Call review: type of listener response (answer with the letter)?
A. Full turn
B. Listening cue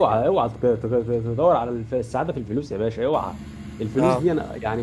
B